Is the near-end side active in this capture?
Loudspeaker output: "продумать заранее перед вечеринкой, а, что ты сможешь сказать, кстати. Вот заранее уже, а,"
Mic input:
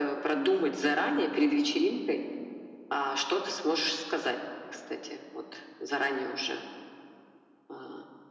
No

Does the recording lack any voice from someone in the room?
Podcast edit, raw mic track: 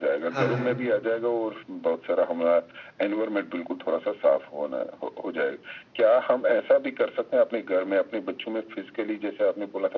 No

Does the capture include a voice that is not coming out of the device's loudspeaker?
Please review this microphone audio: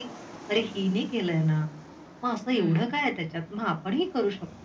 Yes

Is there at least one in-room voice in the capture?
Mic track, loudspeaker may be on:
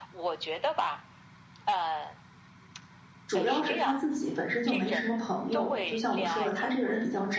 Yes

